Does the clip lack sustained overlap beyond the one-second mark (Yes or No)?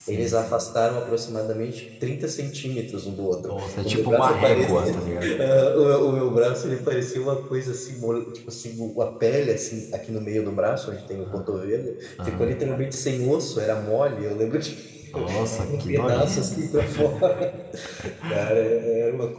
No